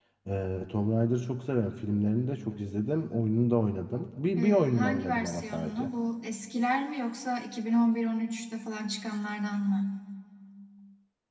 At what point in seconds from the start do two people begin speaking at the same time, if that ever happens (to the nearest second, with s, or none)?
4 s